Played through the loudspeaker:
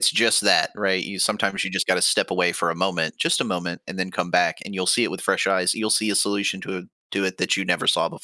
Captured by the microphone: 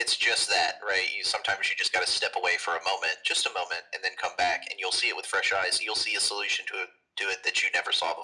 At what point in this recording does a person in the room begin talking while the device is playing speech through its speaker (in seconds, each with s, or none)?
none